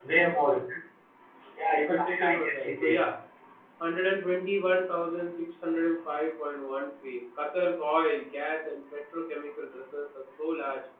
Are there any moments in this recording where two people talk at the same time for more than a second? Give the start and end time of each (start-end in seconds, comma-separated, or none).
1.7-3.0